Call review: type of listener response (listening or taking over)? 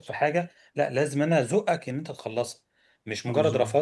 listening